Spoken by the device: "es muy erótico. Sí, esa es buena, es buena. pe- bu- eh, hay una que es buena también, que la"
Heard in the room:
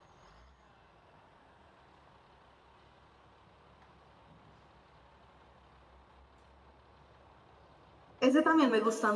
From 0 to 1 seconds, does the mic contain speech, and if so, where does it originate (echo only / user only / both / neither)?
neither